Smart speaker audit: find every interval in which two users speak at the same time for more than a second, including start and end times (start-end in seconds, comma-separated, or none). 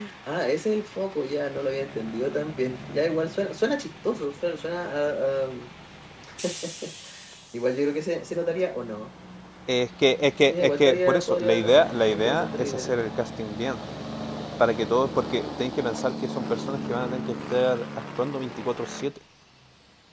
10.5-13.0